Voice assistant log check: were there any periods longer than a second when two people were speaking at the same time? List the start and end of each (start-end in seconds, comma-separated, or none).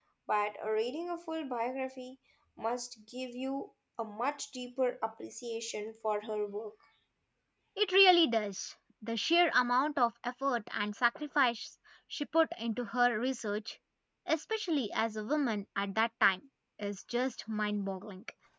none